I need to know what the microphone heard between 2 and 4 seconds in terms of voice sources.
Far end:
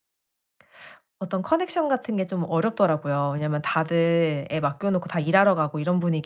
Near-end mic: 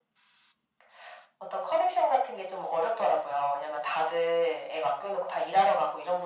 echo only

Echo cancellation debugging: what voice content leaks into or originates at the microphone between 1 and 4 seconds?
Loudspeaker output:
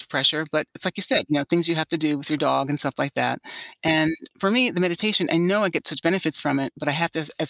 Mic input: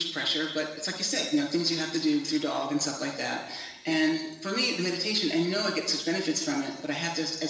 echo only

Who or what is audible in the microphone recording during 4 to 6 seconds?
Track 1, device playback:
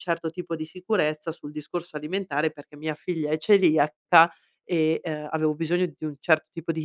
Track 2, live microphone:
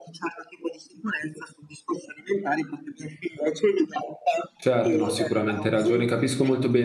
both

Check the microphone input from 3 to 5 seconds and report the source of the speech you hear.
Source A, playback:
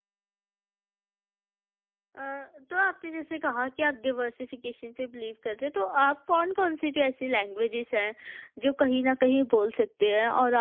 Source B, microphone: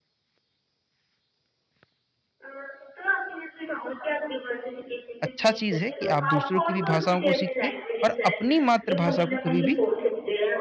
echo only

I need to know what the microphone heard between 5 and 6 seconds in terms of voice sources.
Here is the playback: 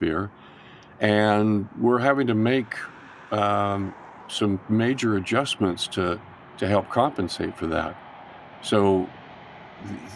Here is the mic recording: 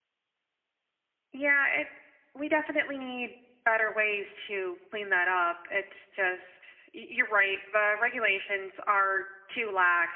user only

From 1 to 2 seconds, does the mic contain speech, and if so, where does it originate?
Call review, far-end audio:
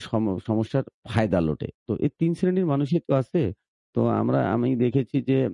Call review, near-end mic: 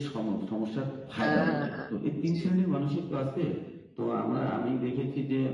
both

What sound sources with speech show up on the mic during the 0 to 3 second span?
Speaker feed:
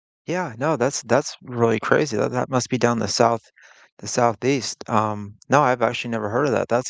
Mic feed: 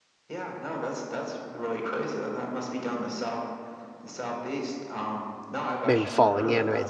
echo only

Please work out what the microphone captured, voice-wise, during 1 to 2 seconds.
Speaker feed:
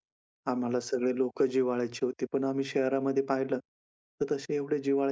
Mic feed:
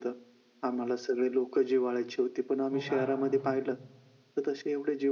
echo only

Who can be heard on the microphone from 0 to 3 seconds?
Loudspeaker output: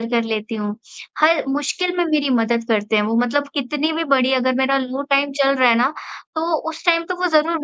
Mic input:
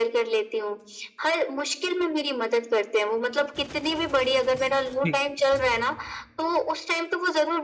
echo only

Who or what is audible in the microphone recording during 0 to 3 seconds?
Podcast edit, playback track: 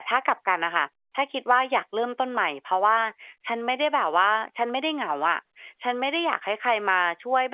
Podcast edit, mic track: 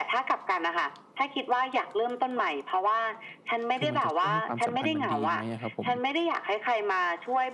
echo only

